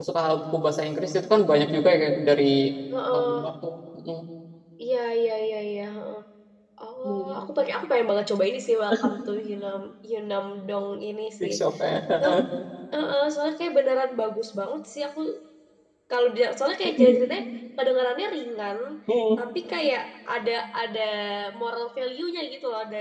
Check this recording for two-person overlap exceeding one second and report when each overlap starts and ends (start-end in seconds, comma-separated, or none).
none